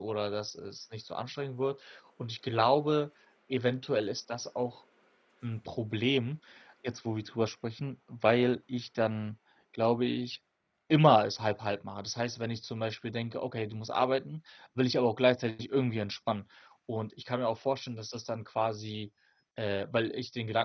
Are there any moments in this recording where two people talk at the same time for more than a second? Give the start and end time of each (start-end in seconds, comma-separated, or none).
none